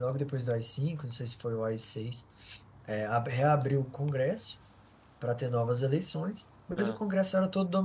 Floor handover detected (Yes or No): No